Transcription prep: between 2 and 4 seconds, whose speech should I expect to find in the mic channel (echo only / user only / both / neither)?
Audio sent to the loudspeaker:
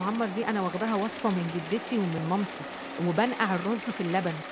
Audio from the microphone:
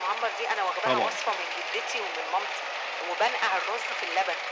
echo only